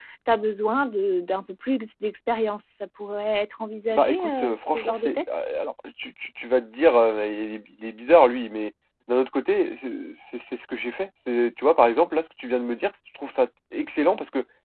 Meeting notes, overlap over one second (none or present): present